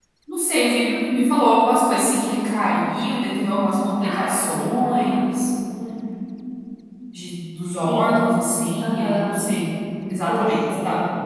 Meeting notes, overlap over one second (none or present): present